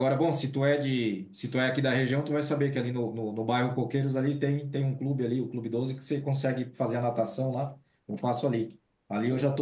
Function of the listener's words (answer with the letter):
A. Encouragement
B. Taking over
A